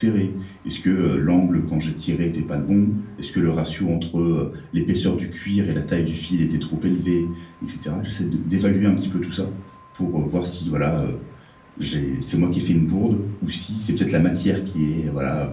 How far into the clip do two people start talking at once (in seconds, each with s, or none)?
none